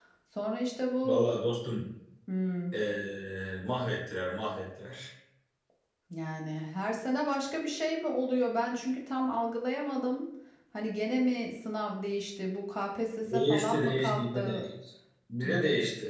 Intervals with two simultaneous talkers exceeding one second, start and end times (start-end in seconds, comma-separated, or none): 13.2-14.6